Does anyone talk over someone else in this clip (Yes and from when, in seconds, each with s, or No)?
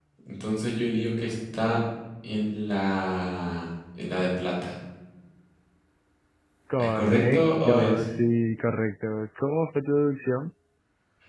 Yes, from 6.8 s